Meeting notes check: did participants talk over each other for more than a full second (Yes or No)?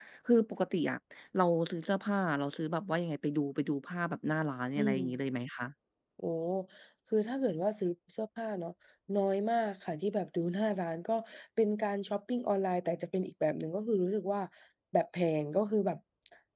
No